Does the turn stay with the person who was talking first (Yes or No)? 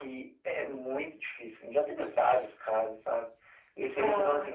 Yes